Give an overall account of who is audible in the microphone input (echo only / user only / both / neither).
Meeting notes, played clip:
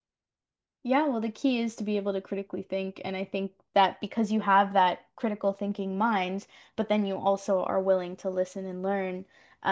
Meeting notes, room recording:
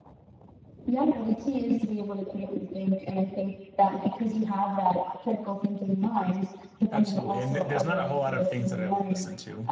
both